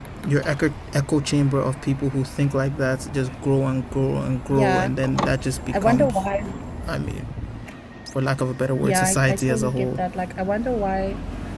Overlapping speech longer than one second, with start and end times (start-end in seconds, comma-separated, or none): 8.8-10.0